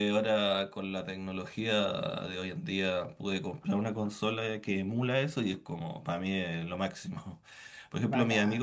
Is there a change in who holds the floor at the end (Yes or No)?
No